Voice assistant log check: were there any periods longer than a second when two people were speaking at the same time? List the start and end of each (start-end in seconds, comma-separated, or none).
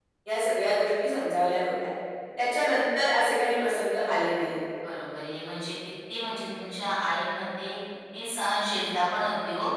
none